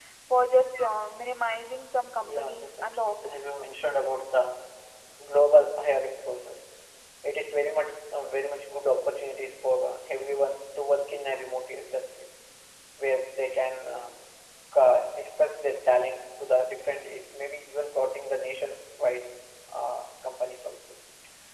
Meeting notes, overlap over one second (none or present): present